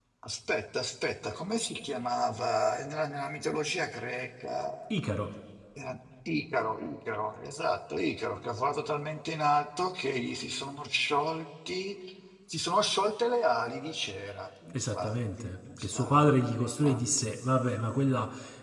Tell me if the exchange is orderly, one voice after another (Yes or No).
No